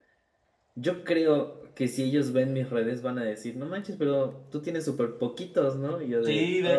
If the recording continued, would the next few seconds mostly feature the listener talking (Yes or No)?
Yes